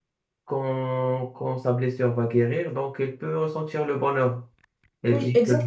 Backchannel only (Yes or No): Yes